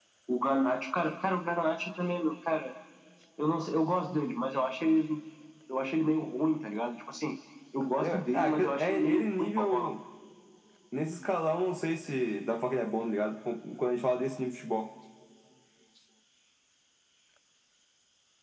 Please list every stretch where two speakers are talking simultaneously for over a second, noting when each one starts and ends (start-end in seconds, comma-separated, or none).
8.0-9.9